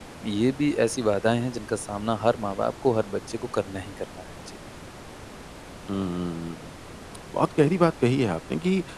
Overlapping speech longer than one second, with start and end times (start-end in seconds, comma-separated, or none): none